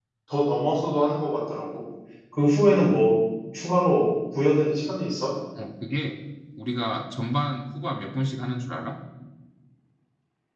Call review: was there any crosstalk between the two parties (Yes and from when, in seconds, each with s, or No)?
No